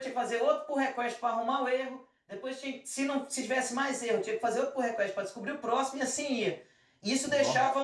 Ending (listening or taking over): listening